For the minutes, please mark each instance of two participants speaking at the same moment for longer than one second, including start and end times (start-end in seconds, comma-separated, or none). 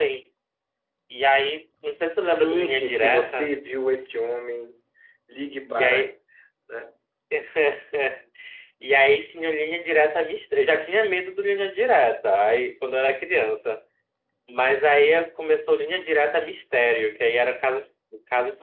2.2-3.5